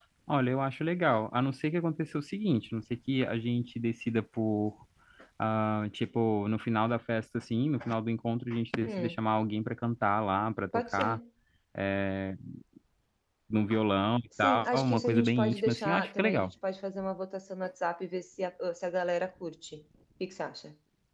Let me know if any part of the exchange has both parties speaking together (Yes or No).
Yes